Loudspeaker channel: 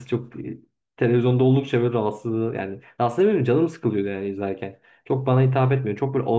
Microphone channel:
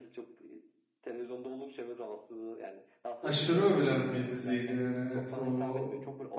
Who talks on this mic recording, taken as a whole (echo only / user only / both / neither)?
both